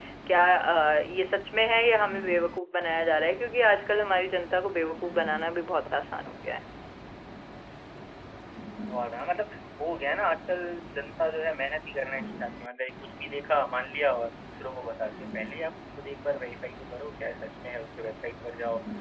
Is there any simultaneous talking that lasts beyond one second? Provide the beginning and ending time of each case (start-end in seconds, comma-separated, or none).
none